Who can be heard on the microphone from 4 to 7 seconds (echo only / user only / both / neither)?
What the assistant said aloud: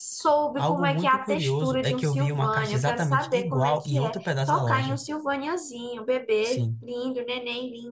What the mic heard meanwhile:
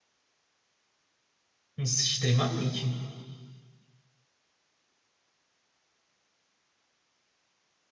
neither